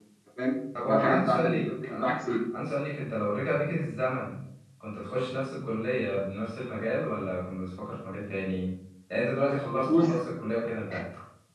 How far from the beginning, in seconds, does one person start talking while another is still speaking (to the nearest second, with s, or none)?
1 s